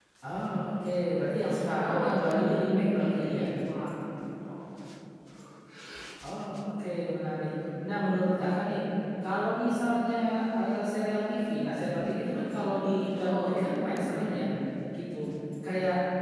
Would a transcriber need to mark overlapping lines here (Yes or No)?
Yes